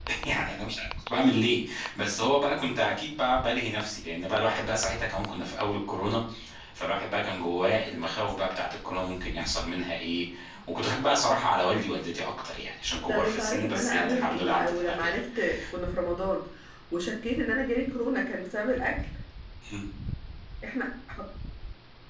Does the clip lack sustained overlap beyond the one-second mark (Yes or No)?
No